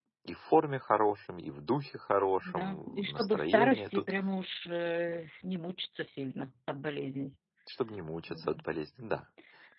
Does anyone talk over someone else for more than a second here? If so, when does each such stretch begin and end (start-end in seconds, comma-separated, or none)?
2.5-4.0